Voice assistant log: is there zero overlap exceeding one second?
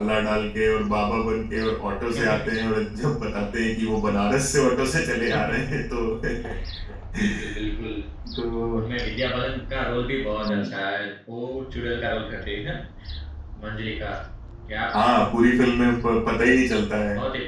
Yes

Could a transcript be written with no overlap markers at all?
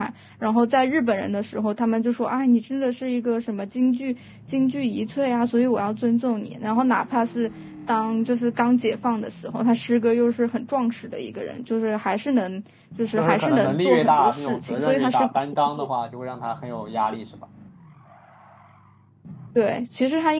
No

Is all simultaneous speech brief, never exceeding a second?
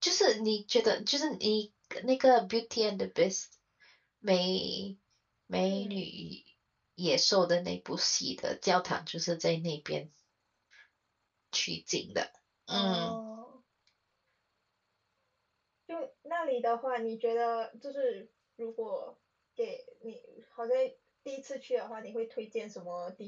Yes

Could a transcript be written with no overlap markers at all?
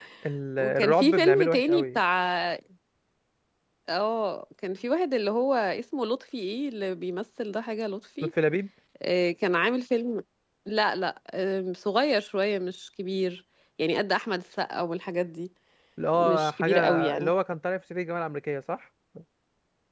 No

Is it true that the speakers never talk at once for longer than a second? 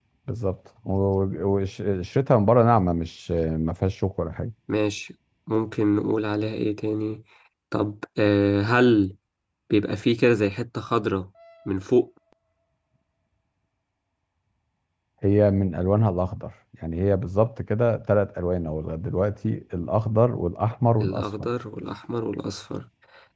Yes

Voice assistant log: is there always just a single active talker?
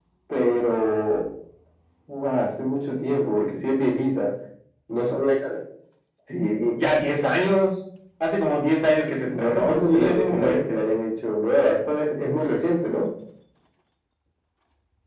No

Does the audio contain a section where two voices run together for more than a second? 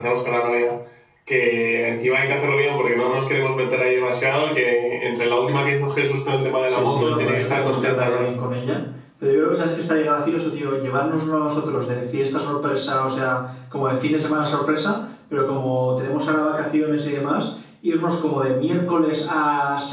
Yes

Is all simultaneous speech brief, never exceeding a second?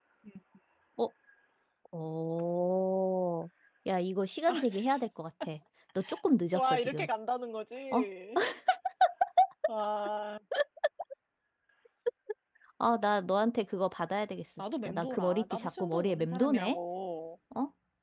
No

